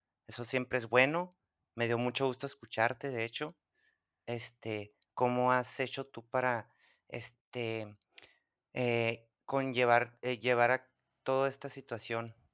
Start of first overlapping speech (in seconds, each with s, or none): none